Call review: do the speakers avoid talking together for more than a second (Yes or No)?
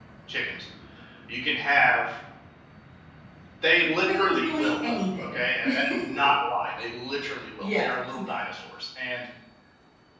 No